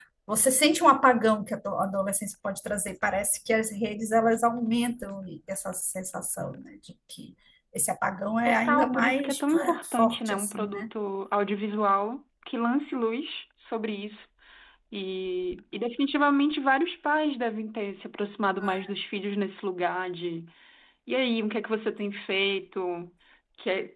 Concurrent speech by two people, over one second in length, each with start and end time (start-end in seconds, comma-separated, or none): 8.4-10.9